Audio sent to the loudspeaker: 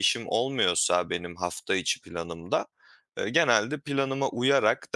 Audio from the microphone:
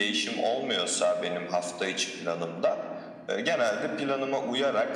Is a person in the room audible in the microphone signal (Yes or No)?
No